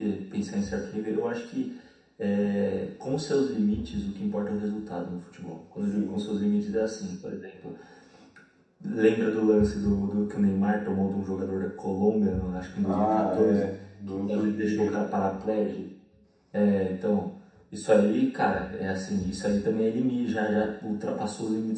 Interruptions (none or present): present